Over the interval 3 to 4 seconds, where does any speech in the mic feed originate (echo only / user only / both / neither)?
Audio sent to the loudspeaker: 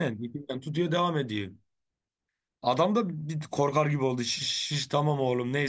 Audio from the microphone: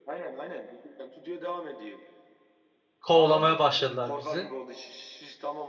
both